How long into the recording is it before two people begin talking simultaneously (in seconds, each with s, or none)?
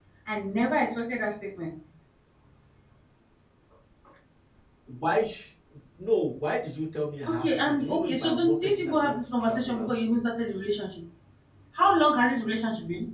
7.3 s